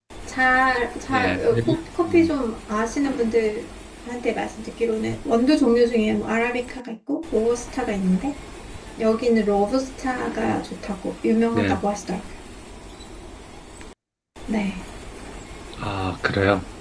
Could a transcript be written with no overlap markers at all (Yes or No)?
No